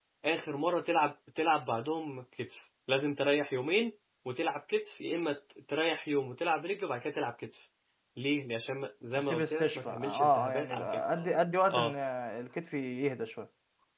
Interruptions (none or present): present